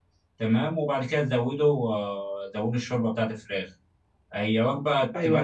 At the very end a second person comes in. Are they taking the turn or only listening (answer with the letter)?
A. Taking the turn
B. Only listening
B